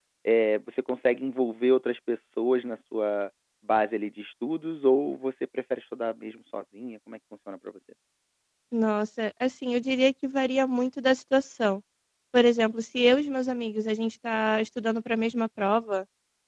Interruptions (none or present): none